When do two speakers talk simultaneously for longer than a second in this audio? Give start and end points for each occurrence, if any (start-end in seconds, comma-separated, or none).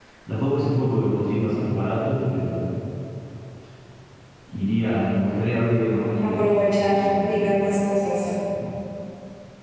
6.2-7.8